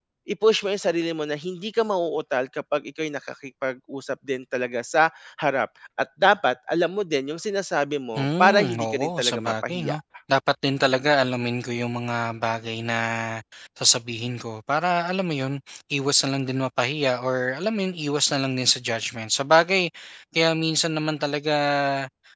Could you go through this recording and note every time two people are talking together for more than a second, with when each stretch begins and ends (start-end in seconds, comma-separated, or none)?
8.2-10.0